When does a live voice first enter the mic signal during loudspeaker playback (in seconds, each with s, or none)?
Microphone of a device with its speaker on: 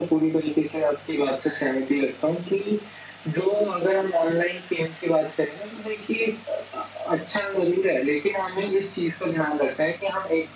none